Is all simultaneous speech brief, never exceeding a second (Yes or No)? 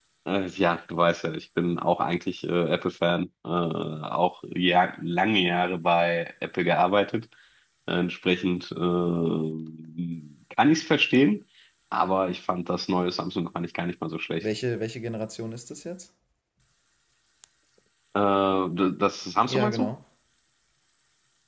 Yes